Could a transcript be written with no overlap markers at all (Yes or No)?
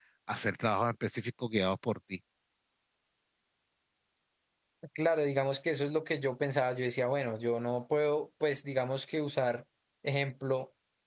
Yes